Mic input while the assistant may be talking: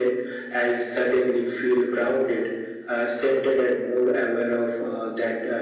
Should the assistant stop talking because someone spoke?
No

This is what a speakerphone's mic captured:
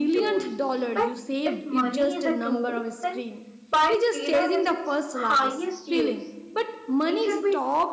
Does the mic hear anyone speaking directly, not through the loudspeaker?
Yes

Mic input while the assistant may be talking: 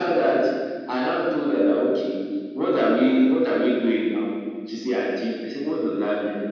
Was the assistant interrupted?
No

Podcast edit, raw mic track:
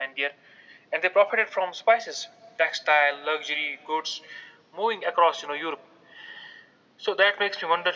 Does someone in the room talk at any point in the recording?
No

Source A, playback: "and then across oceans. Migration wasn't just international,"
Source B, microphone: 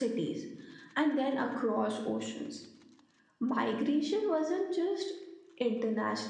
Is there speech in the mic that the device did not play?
No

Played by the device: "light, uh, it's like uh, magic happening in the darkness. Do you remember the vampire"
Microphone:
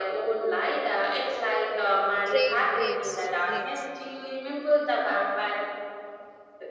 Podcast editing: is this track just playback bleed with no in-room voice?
No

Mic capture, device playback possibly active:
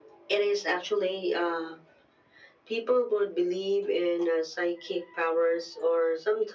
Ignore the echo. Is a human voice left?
No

